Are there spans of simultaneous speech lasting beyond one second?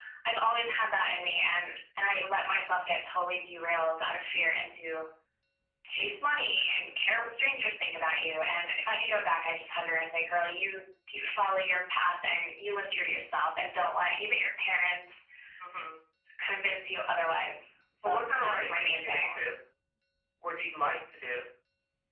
Yes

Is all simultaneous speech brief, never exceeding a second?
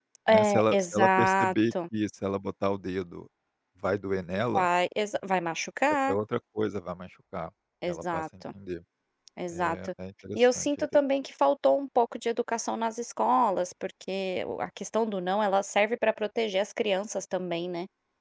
No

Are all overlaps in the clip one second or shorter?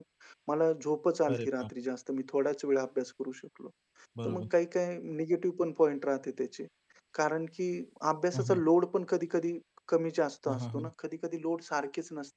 Yes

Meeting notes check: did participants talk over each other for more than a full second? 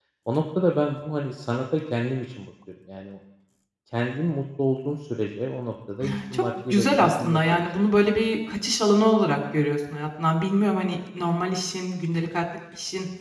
Yes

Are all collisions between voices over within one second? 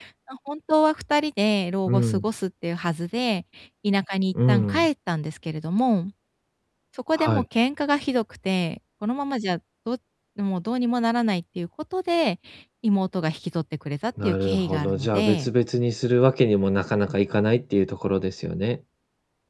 No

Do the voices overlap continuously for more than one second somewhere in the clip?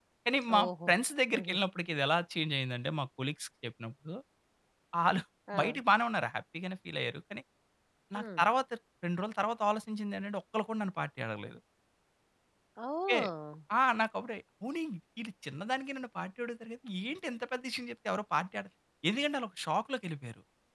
No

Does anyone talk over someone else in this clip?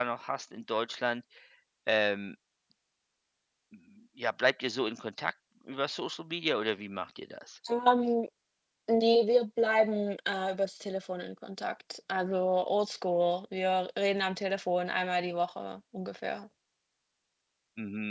No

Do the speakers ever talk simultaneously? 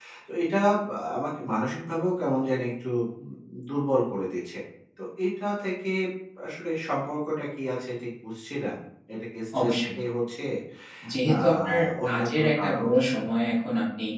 Yes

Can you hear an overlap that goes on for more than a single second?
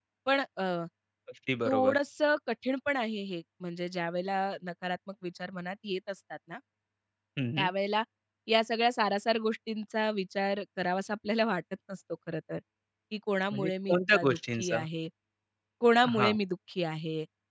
Yes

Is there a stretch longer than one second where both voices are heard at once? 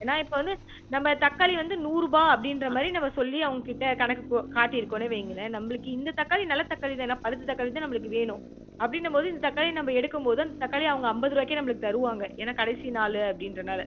No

